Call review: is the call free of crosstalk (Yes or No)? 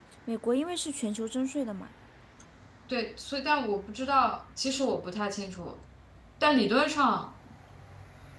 Yes